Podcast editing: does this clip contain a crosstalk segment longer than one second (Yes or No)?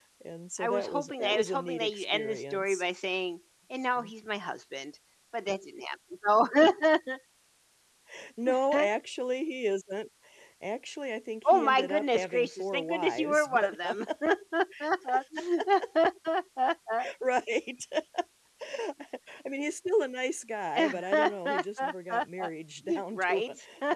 Yes